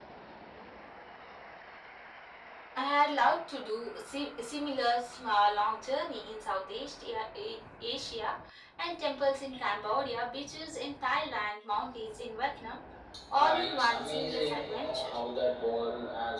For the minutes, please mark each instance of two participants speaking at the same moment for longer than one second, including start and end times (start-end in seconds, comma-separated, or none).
13.4-15.1